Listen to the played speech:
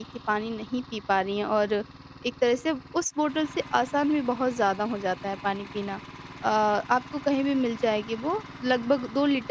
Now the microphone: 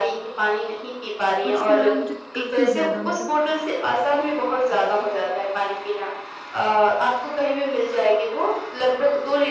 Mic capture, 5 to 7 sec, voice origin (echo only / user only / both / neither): echo only